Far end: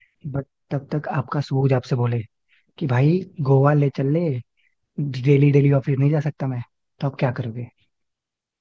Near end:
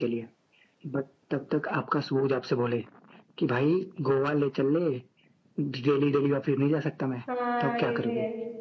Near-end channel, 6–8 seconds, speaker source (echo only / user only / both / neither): both